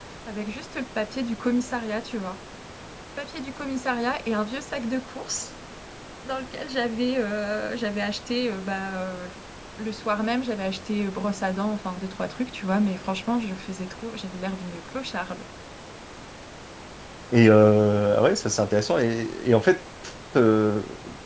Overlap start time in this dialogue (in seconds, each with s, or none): none